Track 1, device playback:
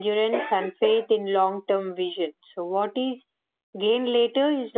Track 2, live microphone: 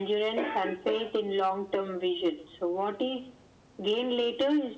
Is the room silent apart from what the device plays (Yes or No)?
Yes